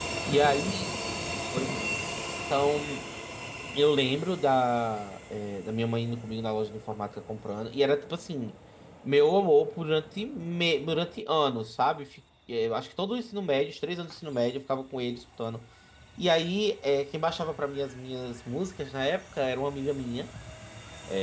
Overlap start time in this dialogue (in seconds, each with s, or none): none